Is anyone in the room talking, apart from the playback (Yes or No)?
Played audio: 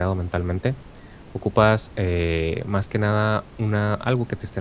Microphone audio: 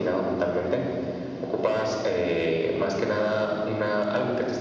No